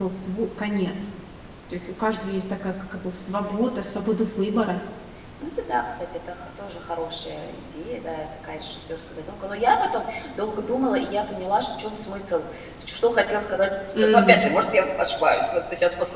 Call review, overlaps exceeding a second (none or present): none